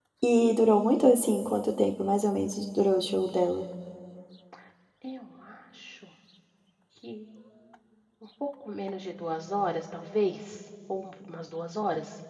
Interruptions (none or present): none